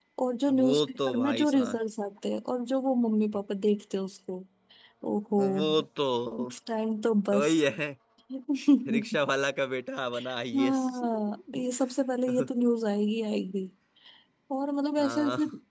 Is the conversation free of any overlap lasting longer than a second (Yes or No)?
No